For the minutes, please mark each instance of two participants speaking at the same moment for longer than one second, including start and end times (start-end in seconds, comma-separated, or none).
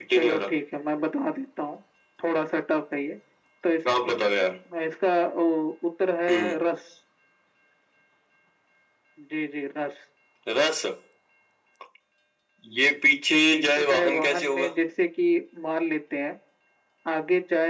13.5-14.7